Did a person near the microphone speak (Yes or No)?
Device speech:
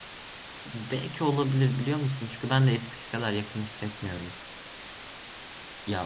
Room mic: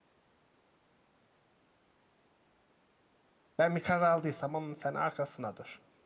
Yes